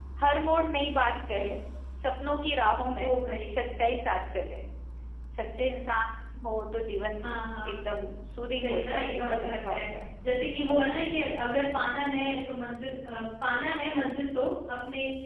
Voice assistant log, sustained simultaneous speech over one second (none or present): present